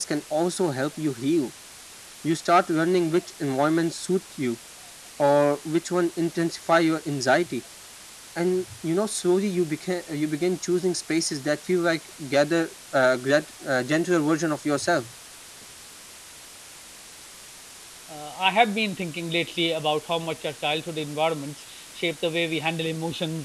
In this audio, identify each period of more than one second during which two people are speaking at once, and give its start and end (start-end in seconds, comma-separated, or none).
none